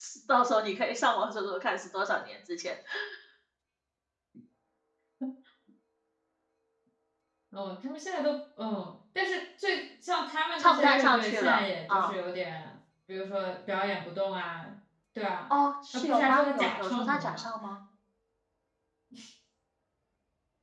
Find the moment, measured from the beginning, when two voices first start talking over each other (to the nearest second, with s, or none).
11 s